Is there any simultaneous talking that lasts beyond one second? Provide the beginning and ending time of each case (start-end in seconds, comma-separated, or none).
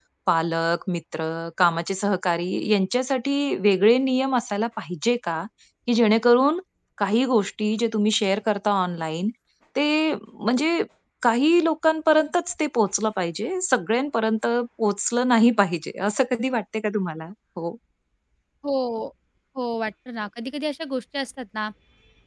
none